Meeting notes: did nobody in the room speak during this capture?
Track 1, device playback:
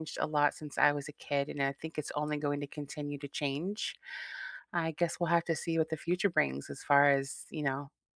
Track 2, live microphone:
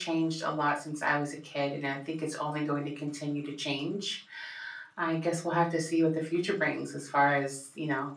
Yes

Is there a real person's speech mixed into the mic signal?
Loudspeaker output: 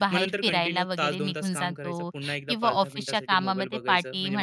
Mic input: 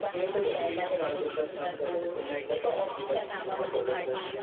No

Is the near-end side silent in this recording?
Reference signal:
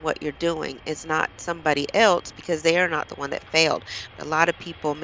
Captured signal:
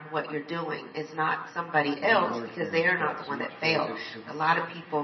No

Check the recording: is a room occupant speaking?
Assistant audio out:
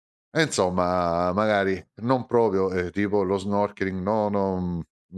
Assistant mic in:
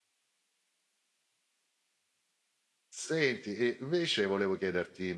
Yes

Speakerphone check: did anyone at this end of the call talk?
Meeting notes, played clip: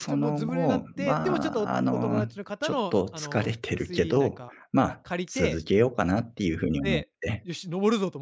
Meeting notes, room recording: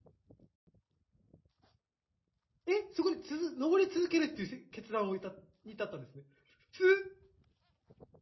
Yes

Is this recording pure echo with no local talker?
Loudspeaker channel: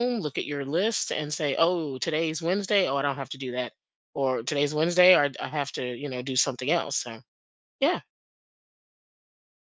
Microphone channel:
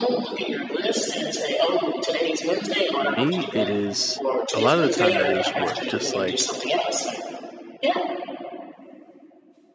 No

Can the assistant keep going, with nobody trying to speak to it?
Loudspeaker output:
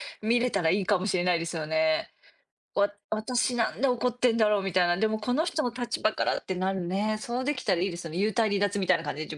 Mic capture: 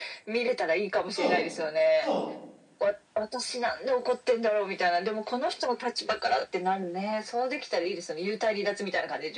No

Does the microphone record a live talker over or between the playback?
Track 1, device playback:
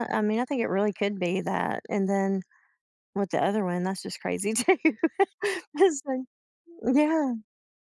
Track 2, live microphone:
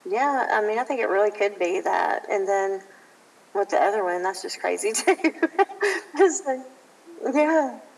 No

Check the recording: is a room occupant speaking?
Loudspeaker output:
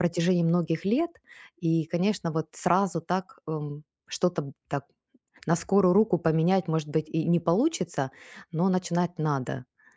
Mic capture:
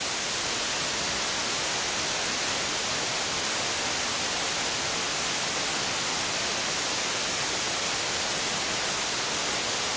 No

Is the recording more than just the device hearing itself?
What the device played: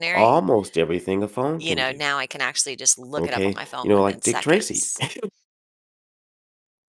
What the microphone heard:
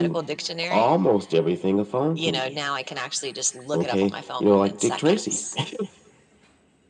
No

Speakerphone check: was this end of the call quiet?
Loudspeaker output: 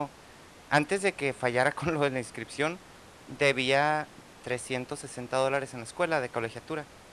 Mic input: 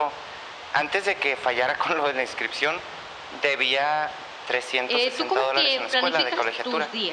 No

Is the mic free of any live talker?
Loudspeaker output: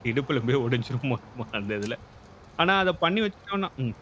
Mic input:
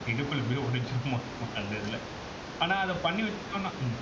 Yes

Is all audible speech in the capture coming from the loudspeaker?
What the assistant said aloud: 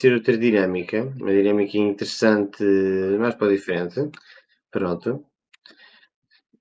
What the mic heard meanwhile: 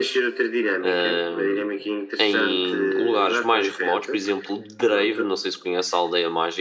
No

